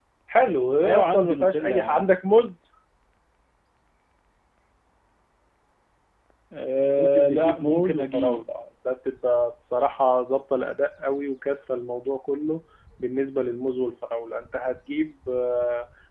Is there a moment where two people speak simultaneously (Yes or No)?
Yes